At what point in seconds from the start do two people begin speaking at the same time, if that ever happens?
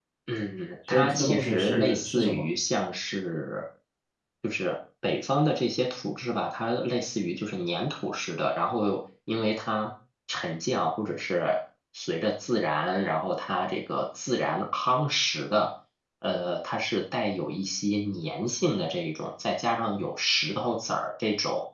0.9 s

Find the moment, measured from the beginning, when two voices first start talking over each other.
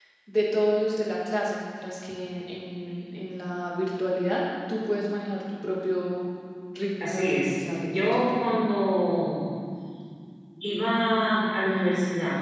7.0 s

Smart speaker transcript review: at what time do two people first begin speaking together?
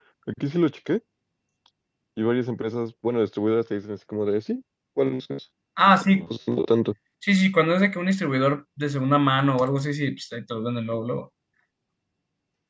none

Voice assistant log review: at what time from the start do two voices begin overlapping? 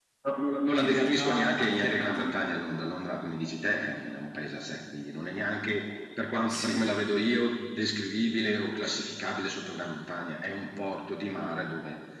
0.8 s

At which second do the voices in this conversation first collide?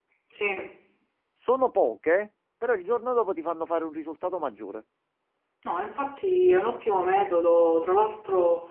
none

